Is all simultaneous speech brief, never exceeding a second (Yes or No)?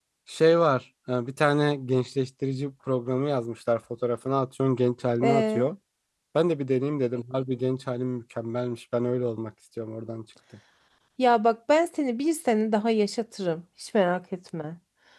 Yes